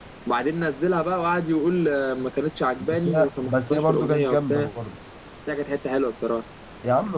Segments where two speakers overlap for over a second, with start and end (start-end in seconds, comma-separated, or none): 2.9-4.7